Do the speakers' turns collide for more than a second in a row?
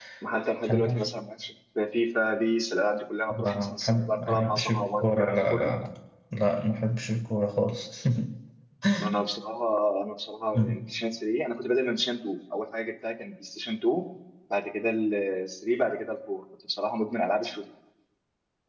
Yes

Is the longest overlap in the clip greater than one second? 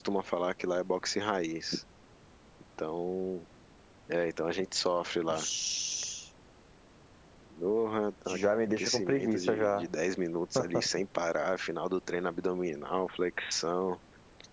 Yes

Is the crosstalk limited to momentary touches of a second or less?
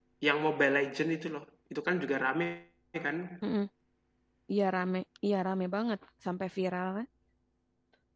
Yes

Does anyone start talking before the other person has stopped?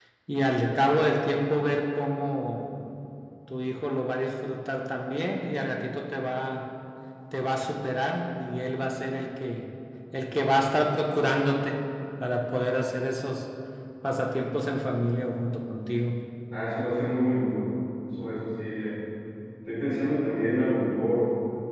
No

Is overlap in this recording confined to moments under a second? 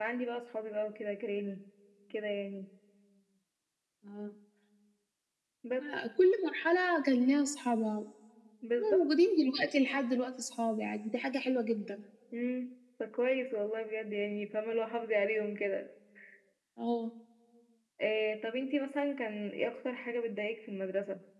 Yes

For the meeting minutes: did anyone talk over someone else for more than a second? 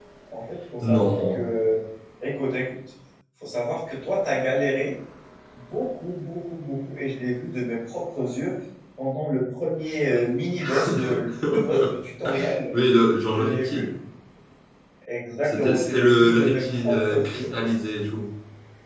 Yes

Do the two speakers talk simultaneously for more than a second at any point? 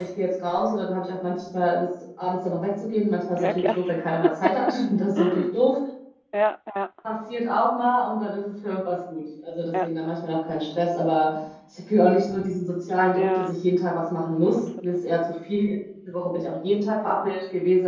No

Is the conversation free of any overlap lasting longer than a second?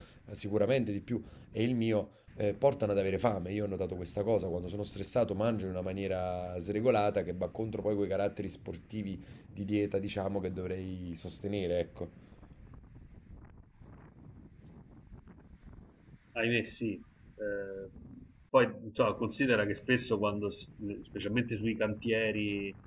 Yes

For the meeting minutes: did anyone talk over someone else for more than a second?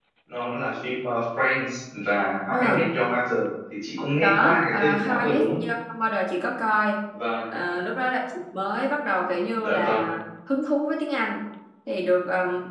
Yes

